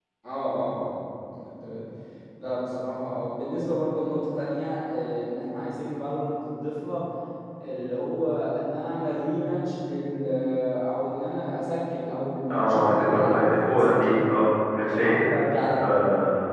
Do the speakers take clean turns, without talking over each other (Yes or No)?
No